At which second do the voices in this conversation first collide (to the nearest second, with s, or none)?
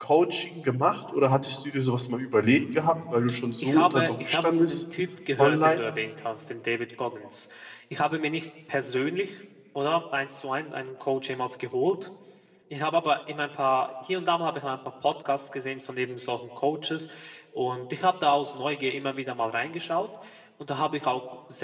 4 s